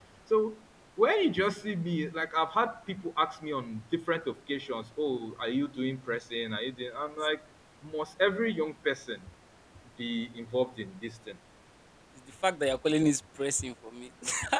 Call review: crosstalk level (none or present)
none